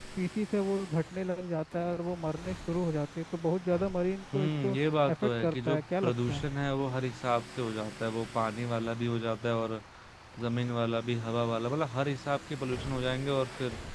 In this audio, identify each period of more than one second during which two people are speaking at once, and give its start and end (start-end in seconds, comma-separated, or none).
5.1-6.4